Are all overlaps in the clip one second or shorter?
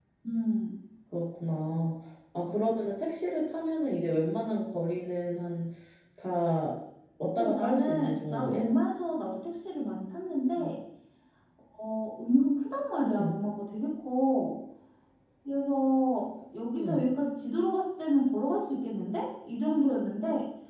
No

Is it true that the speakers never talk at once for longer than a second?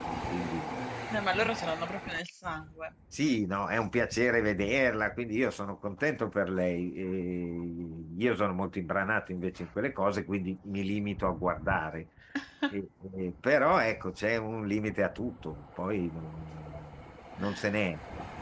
Yes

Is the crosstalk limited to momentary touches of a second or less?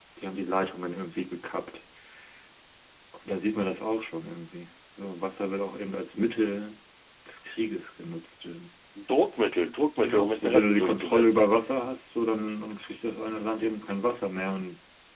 No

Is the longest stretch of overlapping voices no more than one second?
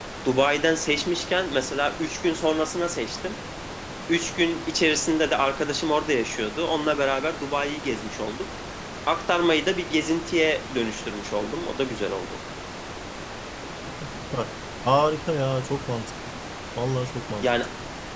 Yes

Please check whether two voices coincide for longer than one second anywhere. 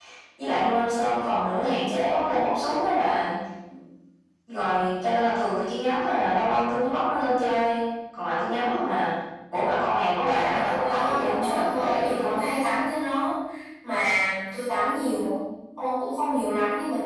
Yes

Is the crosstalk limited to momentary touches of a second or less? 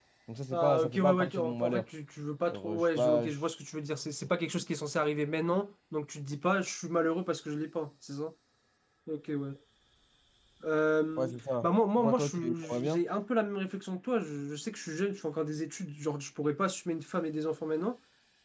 No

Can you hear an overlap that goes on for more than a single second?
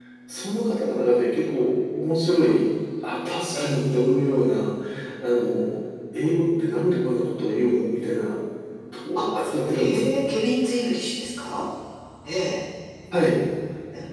No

